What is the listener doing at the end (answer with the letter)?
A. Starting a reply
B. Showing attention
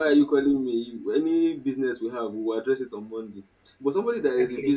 B